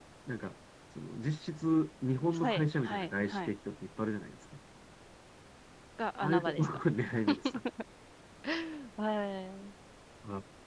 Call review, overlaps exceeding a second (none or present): present